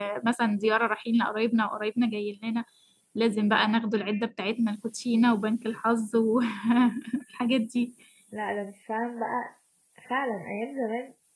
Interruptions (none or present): none